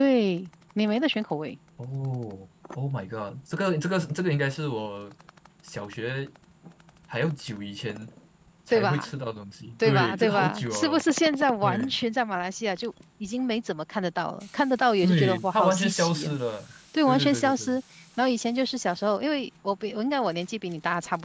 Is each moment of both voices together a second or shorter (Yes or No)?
No